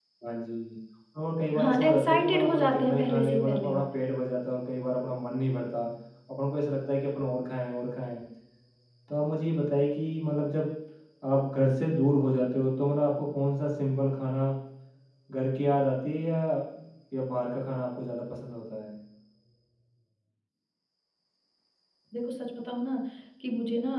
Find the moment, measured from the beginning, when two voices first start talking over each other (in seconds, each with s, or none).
1.6 s